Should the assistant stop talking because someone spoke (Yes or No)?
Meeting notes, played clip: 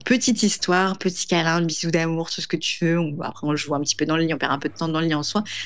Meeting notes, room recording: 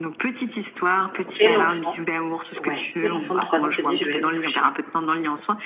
Yes